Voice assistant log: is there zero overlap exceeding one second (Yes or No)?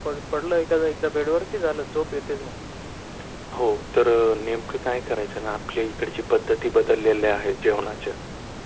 Yes